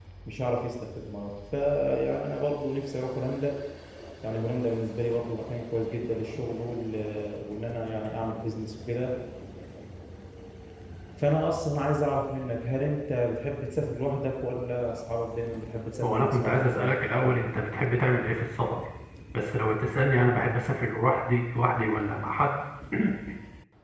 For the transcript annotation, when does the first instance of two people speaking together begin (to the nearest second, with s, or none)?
16 s